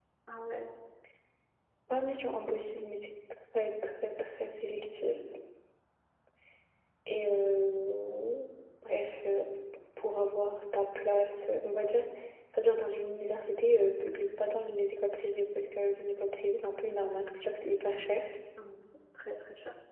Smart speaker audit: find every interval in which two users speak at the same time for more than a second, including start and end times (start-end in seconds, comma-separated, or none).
none